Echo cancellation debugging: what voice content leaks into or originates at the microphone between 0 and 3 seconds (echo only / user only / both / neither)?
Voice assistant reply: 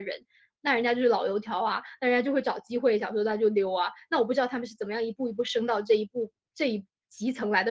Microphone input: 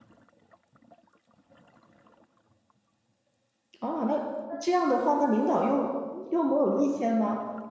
neither